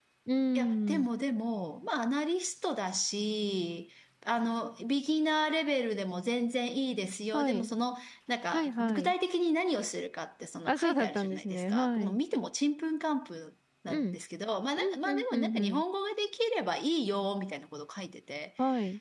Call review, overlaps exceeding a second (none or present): present